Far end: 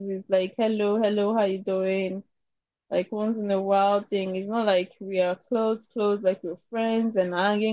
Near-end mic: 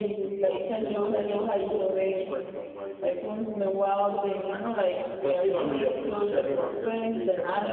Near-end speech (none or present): present